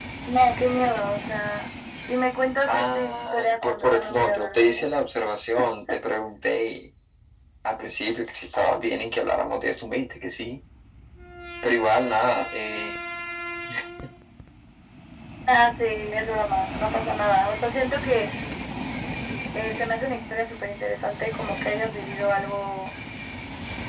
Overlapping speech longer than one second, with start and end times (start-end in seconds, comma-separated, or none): 2.7-4.8